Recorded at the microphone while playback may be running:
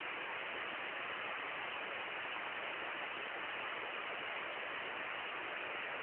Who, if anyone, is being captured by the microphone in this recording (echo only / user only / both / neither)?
neither